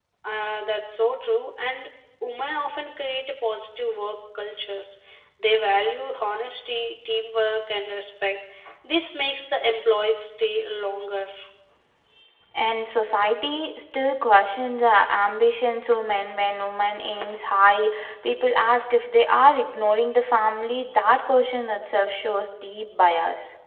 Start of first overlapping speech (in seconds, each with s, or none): none